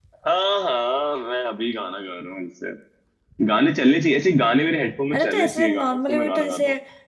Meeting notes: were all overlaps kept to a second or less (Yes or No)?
No